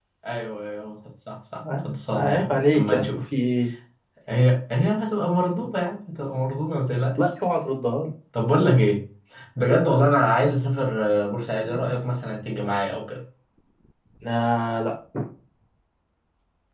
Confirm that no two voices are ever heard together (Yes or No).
No